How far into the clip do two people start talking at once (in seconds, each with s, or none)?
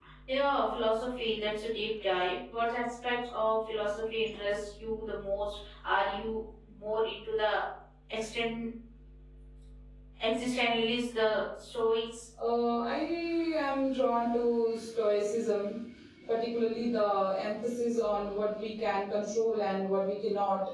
none